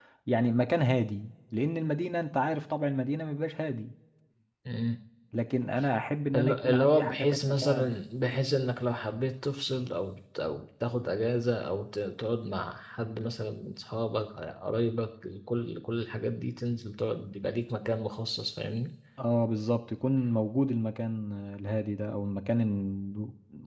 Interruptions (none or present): present